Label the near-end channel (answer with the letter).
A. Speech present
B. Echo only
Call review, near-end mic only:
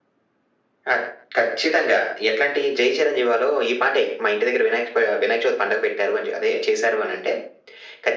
B